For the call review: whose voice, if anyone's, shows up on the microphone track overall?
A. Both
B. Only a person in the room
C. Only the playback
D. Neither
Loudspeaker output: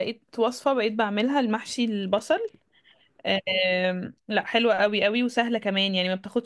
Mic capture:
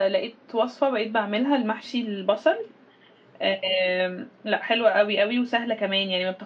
C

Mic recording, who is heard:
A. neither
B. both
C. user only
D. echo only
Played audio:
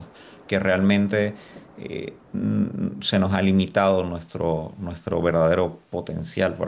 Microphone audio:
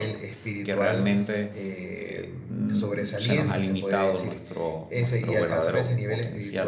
B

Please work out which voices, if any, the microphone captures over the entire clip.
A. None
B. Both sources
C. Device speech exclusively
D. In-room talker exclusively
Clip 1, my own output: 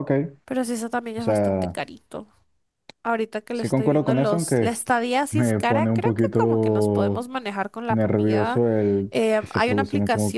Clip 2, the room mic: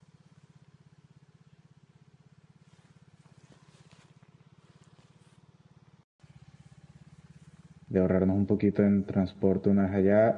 D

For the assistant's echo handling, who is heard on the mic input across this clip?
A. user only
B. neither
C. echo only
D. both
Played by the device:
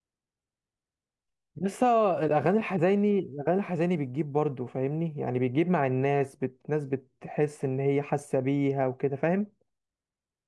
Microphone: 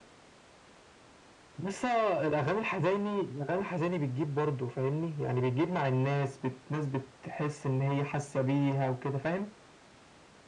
C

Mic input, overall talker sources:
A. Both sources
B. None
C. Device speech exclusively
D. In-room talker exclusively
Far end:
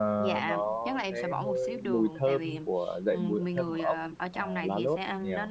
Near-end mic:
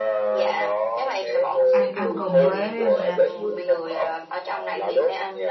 A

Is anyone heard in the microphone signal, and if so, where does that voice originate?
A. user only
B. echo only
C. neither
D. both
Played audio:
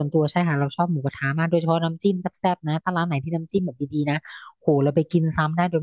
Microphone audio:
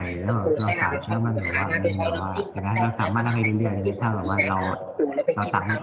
D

